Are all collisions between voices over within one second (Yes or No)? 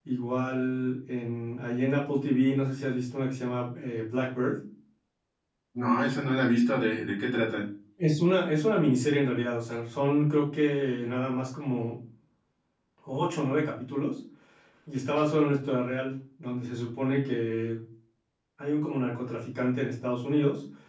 Yes